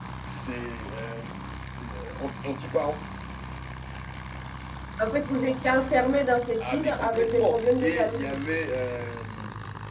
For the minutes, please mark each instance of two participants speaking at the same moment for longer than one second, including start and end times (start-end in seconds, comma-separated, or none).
6.6-8.4